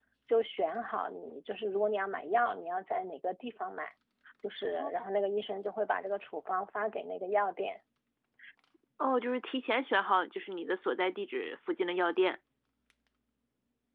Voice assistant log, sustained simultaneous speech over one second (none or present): none